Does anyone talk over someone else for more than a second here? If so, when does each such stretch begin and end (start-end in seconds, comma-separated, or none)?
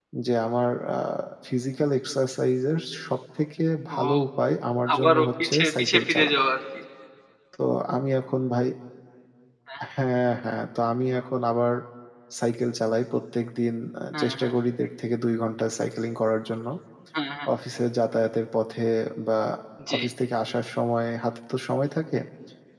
4.9-6.4